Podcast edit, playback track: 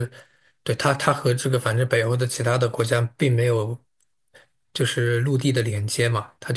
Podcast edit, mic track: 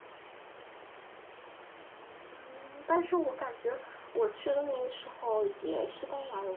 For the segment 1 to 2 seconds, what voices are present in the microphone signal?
neither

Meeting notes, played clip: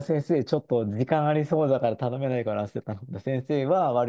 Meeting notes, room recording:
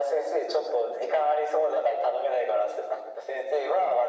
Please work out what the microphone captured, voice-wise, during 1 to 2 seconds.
echo only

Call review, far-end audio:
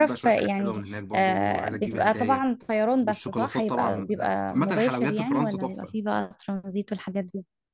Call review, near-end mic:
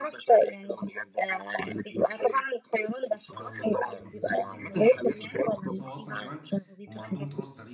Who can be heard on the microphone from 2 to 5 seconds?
both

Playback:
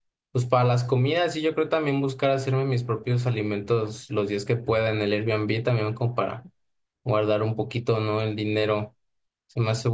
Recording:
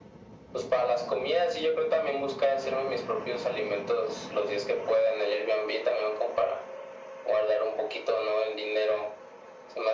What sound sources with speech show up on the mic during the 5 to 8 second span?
echo only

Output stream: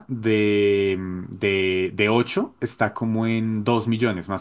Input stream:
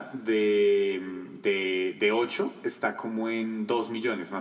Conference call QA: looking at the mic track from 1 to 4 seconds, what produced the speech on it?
echo only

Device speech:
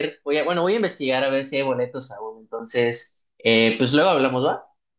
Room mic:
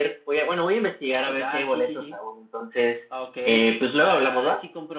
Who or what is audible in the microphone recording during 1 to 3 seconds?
both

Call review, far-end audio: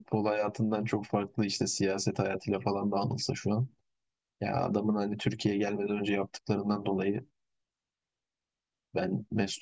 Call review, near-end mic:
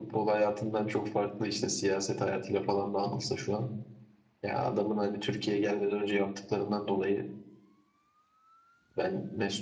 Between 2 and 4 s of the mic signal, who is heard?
echo only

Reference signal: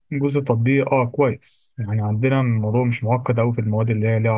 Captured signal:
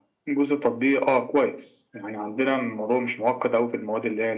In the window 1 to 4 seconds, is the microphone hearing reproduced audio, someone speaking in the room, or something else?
echo only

